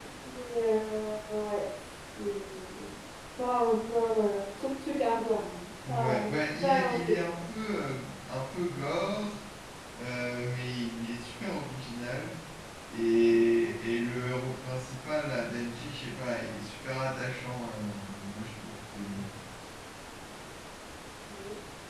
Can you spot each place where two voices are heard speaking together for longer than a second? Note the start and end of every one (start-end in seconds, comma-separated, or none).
5.9-7.2